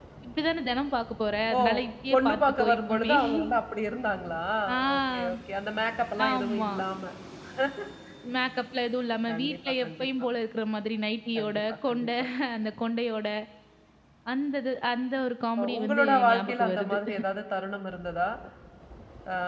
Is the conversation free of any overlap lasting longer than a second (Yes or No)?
No